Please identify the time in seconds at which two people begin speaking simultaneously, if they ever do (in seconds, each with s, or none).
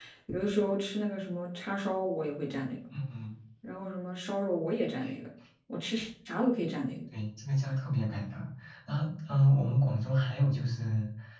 none